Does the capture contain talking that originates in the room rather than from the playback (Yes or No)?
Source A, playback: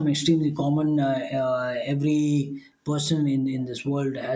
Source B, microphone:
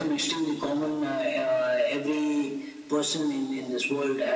No